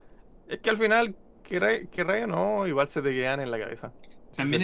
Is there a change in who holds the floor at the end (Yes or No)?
Yes